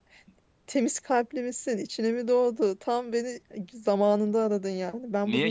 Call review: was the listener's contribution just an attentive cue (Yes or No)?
Yes